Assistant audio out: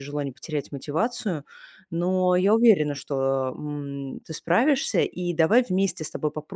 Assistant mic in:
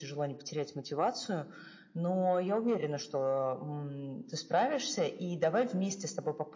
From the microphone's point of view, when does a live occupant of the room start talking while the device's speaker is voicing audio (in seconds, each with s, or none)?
none